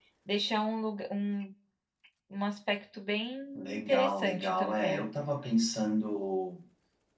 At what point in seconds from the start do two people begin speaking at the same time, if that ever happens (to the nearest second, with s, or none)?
4 s